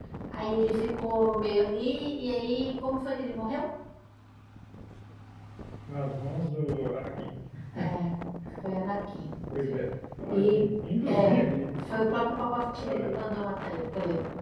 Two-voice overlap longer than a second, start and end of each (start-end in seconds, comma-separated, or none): none